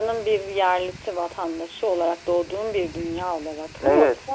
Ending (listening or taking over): taking over